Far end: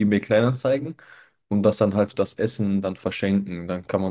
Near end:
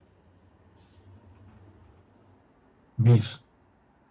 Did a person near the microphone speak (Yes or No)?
Yes